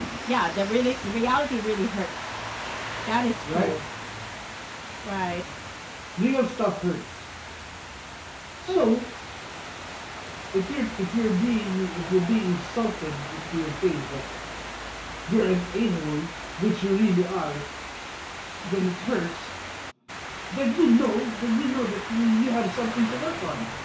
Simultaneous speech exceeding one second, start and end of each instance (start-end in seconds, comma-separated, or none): none